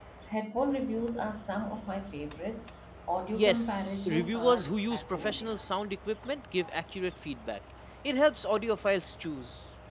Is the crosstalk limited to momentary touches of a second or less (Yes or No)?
No